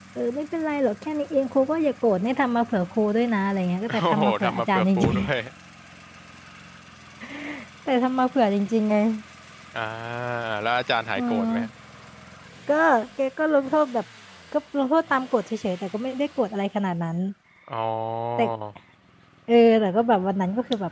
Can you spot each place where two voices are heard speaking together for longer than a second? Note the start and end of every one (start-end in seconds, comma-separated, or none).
3.9-5.4